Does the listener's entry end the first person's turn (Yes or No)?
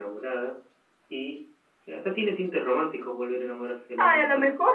Yes